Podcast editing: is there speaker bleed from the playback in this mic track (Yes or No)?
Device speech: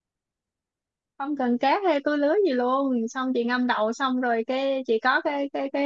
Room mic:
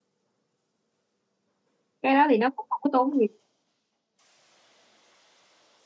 No